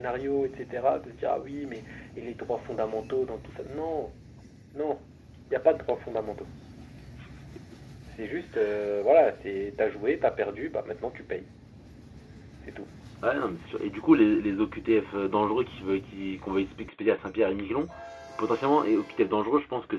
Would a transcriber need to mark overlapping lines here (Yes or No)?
No